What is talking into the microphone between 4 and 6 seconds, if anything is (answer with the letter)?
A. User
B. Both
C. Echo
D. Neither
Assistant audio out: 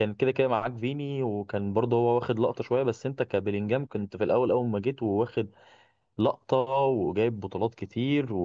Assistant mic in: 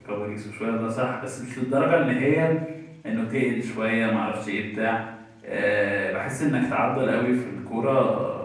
A